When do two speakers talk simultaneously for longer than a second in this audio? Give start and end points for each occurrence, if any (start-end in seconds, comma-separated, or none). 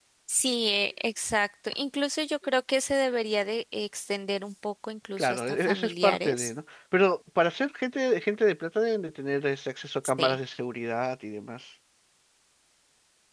5.2-6.5